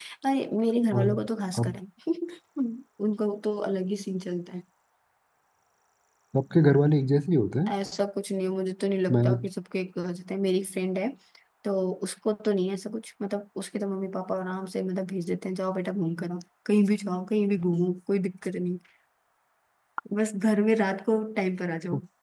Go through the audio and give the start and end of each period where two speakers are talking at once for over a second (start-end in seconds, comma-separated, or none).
none